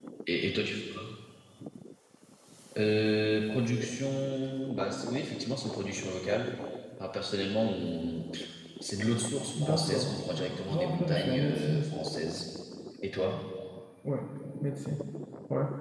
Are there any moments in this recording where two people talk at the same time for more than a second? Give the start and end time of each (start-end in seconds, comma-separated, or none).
9.6-11.8